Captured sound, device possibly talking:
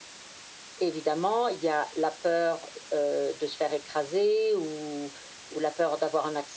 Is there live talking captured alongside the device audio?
No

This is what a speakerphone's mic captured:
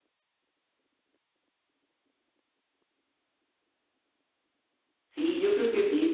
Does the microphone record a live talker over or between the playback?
Yes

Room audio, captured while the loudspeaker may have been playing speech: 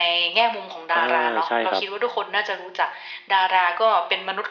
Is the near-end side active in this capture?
Yes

